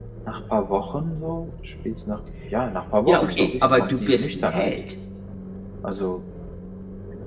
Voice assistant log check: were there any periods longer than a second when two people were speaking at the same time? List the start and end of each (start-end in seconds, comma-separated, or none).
3.1-4.7